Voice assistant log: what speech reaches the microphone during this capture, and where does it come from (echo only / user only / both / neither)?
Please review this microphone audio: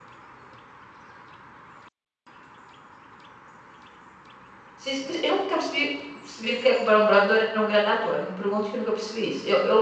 user only